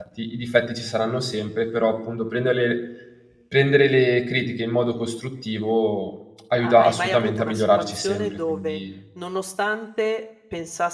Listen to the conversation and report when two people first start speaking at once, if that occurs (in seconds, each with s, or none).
6.6 s